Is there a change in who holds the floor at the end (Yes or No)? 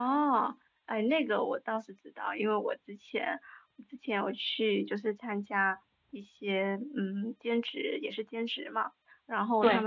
No